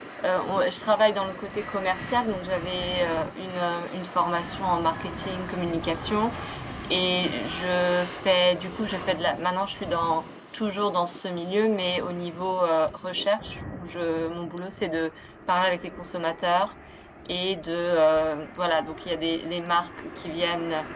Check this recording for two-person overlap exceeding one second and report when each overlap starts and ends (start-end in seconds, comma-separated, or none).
none